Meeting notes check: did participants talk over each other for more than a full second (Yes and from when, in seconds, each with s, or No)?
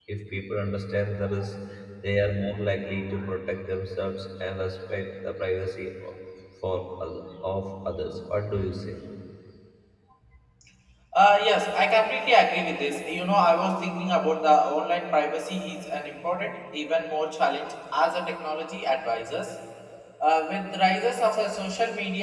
No